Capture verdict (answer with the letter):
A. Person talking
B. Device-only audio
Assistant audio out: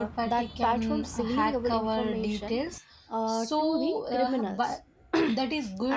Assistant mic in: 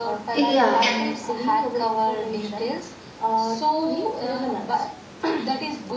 A